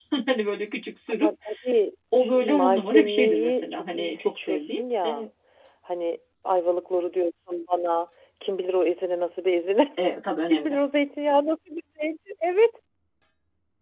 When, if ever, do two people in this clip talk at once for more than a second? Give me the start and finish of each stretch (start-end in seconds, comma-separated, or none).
2.2-5.2